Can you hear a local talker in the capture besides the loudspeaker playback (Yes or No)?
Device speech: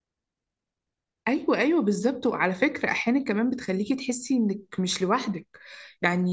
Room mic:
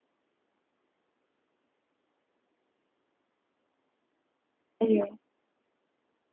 Yes